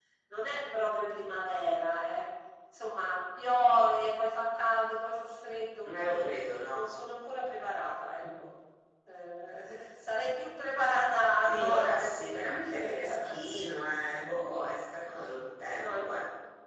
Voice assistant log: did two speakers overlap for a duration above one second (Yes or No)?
Yes